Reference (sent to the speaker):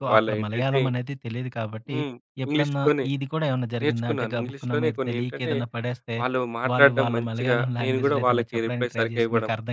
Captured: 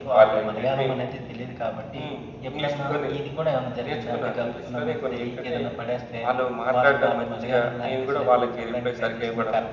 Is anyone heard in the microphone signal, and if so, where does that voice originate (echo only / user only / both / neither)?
echo only